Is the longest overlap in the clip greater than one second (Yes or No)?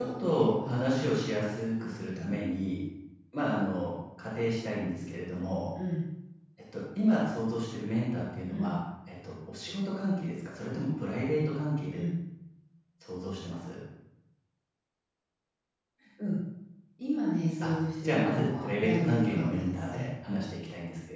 Yes